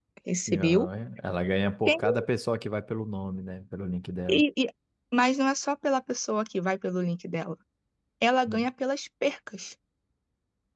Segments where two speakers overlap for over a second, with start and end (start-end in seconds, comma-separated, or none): none